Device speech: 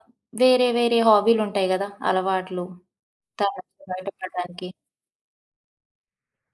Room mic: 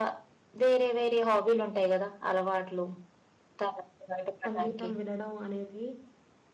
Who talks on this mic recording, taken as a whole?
both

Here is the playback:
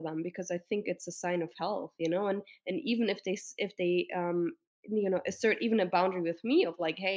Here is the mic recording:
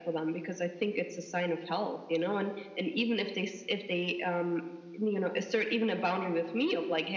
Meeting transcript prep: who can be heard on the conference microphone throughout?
echo only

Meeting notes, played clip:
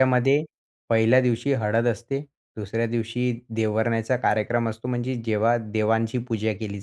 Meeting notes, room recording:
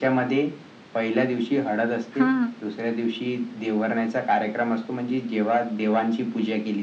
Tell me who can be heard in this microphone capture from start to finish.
both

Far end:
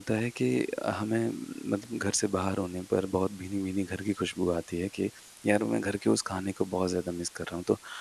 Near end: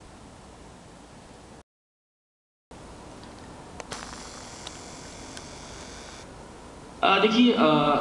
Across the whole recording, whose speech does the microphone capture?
user only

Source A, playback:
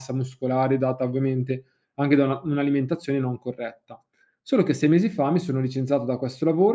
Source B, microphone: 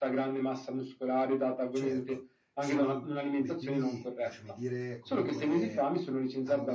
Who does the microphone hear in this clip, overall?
both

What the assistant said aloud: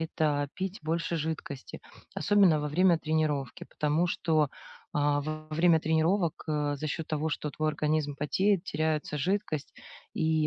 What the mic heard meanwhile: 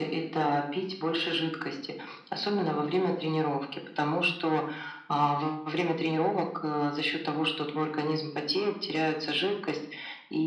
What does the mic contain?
echo only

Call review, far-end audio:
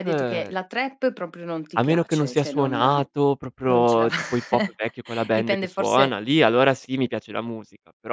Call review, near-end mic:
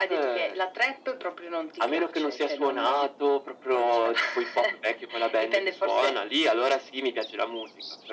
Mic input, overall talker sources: echo only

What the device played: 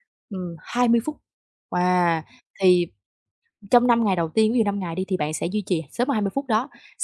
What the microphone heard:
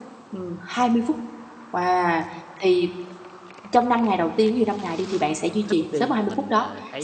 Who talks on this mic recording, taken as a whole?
both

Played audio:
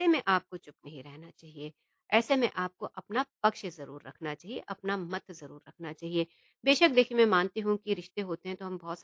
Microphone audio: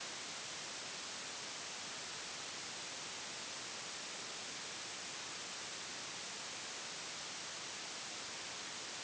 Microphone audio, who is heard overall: neither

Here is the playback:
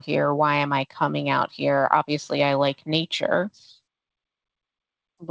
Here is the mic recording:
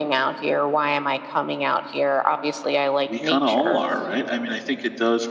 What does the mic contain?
both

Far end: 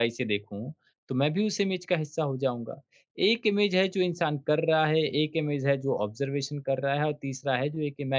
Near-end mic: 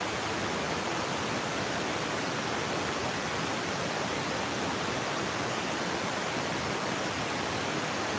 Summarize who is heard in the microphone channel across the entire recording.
neither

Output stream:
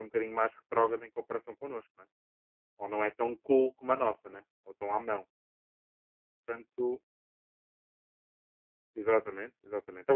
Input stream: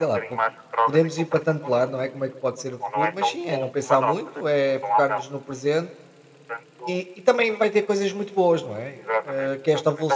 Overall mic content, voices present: both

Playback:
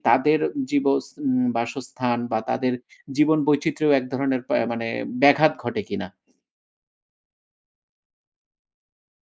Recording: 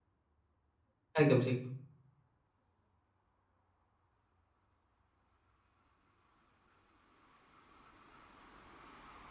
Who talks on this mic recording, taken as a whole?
user only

